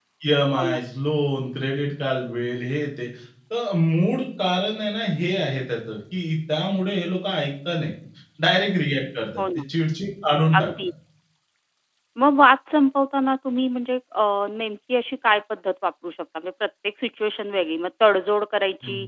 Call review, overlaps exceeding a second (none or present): none